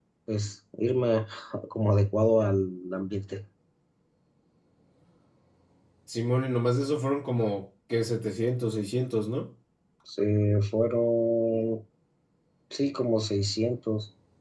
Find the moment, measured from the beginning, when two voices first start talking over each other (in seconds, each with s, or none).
none